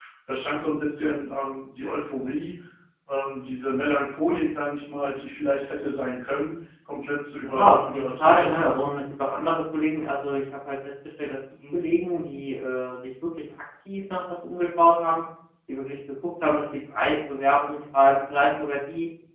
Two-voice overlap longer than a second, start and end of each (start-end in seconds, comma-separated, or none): 7.4-8.6